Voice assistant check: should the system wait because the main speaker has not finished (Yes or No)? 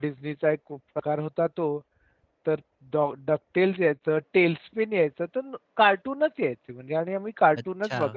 Yes